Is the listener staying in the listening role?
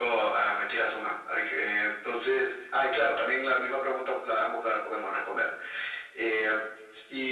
Yes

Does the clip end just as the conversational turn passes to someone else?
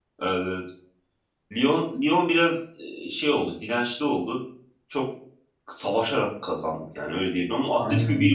No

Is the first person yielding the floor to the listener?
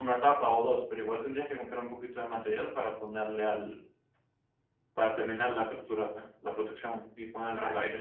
No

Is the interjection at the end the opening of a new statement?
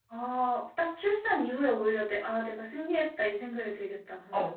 Yes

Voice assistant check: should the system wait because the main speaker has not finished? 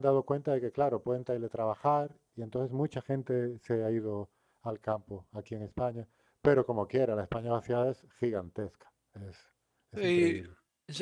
No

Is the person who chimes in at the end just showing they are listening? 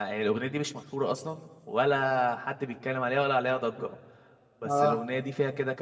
Yes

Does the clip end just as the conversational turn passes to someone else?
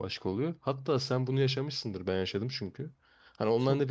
No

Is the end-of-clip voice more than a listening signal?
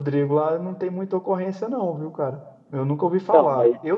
No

